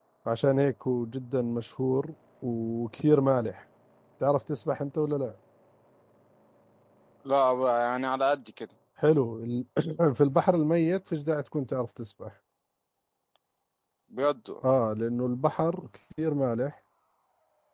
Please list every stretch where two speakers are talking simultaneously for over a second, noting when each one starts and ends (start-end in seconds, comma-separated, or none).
none